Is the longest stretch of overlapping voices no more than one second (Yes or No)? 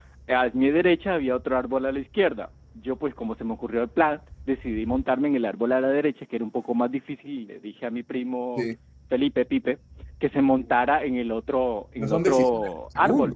No